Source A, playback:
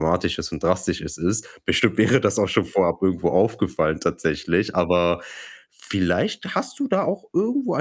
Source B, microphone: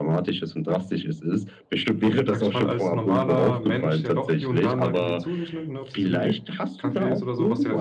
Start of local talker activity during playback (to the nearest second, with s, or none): 2 s